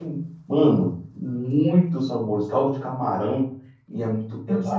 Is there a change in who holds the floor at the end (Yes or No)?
Yes